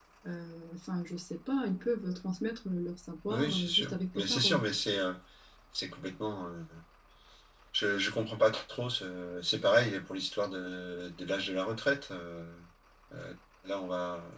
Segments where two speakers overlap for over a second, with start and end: 3.3-4.6

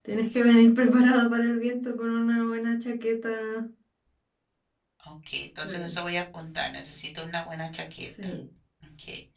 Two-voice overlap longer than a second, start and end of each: none

